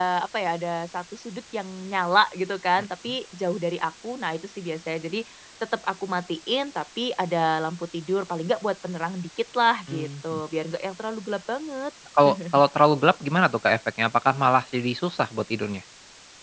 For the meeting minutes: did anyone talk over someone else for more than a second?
No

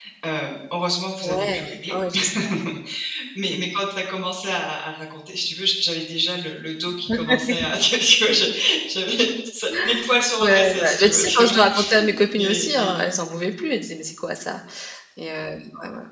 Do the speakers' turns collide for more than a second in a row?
Yes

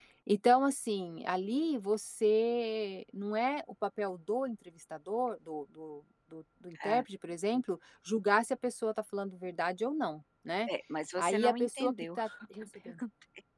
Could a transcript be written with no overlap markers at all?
No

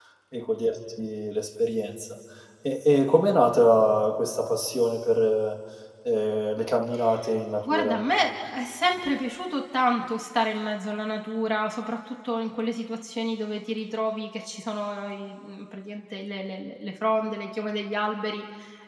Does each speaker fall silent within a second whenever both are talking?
Yes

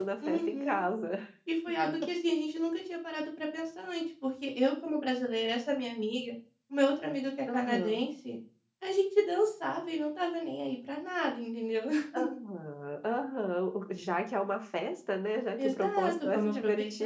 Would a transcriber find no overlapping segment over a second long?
No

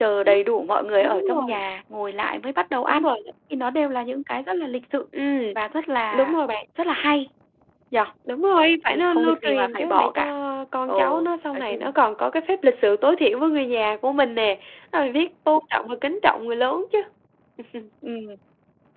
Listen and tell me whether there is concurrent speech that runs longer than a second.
Yes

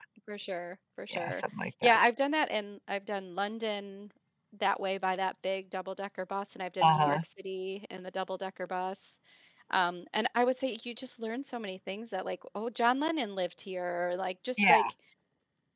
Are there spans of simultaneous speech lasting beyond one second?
No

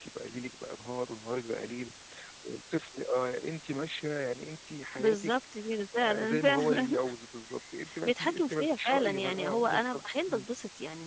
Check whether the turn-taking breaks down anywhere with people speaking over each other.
Yes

